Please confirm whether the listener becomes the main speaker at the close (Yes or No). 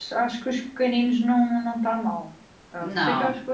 No